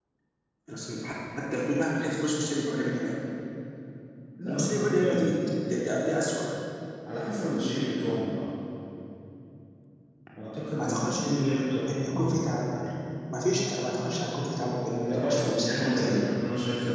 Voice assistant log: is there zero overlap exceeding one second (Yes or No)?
No